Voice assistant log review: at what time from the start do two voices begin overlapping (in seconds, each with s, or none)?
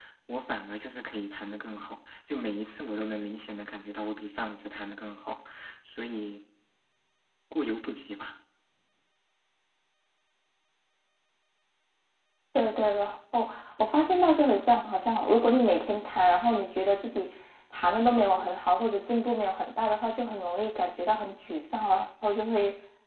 none